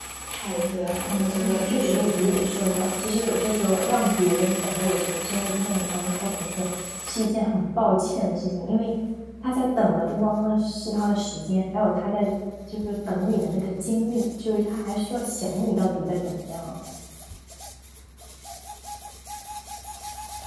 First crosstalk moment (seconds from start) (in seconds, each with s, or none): 1.1 s